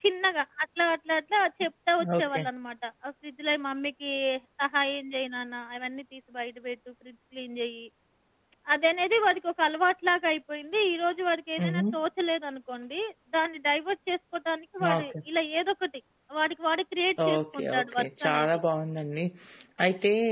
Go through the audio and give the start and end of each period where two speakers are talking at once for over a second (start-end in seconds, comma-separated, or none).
17.3-18.6